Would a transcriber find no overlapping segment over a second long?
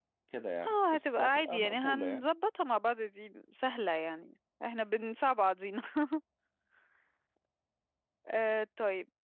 No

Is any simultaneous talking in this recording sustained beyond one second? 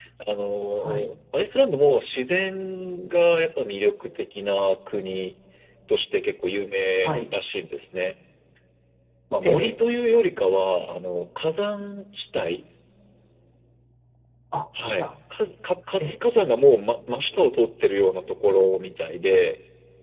No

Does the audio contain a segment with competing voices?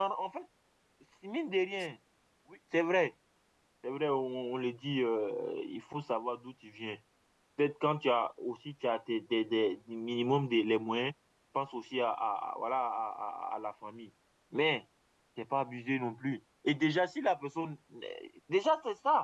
No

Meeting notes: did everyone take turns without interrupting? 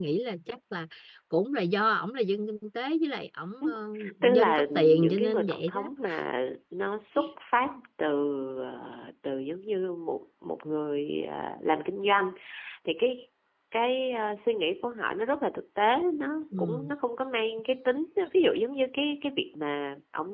No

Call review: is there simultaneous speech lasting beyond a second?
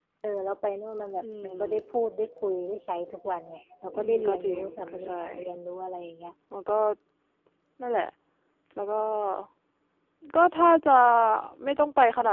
Yes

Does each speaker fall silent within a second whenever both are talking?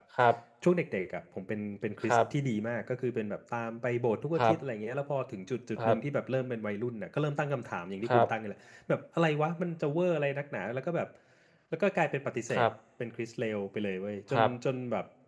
Yes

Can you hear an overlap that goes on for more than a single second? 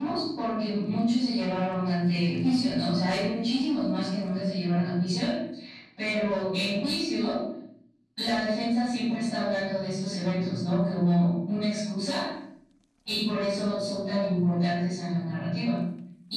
No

